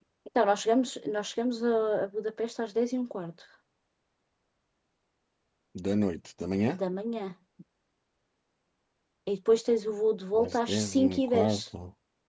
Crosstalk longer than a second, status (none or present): present